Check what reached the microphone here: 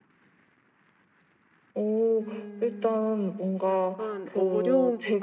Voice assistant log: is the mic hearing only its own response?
No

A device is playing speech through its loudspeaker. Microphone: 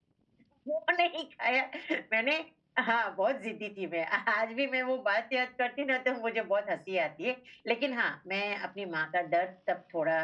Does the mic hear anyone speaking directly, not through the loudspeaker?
Yes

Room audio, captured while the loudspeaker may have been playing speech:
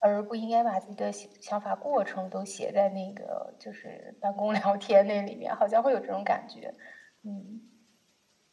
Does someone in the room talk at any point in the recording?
No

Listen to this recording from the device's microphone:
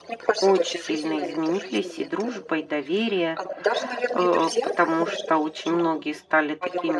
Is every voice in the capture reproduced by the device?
No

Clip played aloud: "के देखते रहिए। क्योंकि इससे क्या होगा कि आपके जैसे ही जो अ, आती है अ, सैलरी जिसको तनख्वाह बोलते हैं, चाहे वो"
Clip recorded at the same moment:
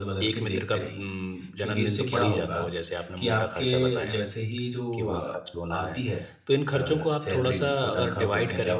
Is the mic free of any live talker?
No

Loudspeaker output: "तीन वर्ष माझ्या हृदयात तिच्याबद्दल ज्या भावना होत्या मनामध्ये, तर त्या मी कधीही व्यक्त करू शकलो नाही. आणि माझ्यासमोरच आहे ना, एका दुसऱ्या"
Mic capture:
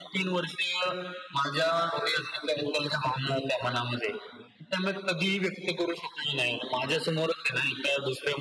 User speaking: No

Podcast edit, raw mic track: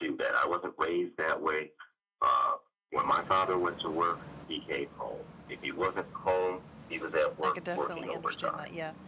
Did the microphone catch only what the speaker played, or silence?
No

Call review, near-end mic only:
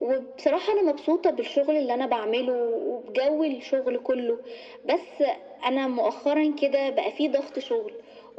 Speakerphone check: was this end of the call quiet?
Yes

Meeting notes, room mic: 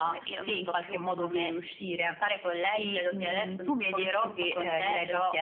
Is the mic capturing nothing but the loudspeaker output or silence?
Yes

